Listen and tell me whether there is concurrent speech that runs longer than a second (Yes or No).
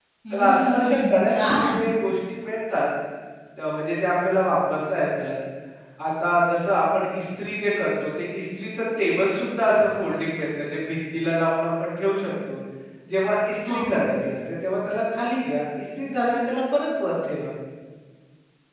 Yes